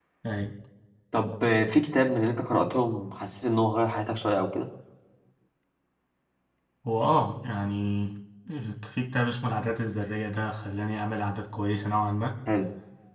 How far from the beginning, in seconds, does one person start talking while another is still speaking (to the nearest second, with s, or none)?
none